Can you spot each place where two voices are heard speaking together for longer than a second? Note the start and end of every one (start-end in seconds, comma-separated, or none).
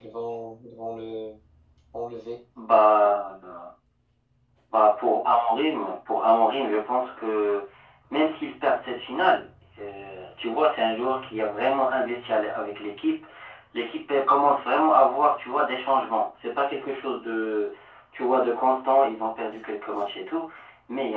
none